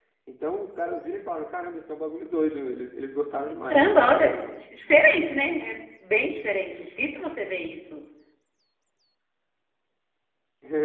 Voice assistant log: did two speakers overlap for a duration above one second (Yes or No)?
No